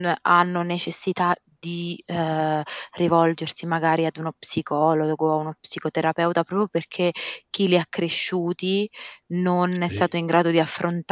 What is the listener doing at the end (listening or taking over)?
listening